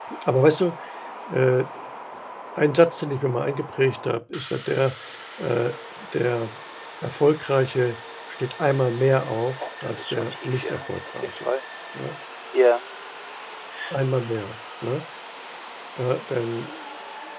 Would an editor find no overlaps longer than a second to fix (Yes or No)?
No